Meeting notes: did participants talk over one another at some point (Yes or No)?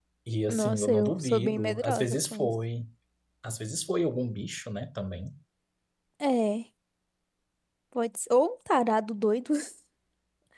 Yes